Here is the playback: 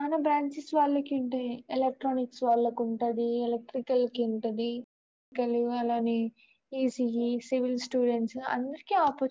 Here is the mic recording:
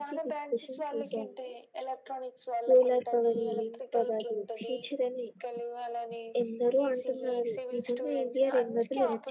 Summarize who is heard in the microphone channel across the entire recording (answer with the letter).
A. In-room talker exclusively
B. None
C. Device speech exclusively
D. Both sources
D